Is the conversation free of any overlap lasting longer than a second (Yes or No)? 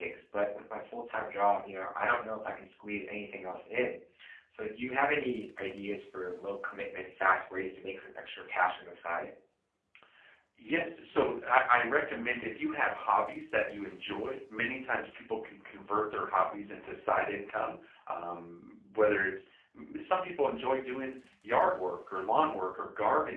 Yes